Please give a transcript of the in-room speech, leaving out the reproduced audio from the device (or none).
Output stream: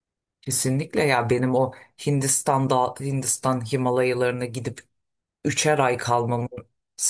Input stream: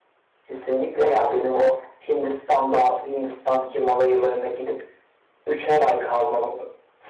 none